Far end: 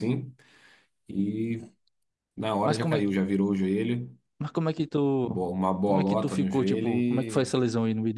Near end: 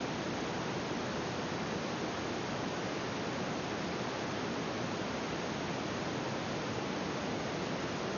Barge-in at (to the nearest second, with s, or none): none